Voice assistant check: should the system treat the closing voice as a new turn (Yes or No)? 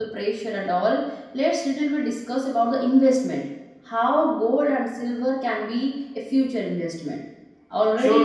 No